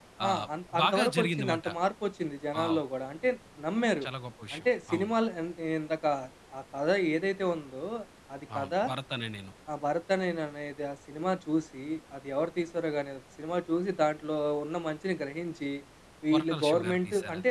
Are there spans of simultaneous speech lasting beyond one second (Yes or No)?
Yes